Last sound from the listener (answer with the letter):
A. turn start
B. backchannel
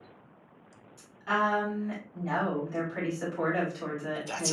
B